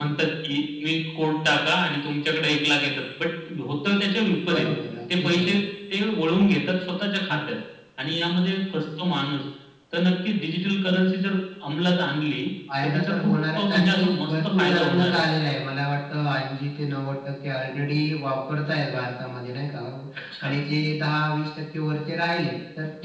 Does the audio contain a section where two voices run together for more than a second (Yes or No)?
Yes